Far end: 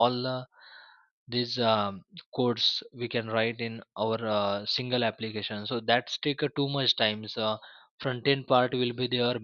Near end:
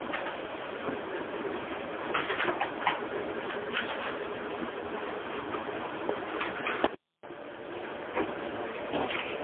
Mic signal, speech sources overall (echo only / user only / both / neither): neither